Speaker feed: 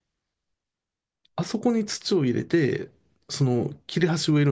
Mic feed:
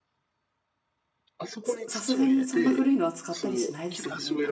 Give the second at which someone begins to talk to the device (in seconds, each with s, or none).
1.6 s